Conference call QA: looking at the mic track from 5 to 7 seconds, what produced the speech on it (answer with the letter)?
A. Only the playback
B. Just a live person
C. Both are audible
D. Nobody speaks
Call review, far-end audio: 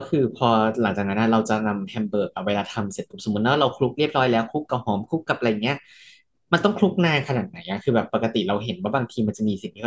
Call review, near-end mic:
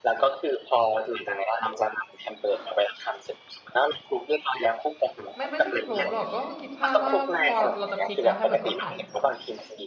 C